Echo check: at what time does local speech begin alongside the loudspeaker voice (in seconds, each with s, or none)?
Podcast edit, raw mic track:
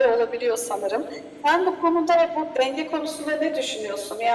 none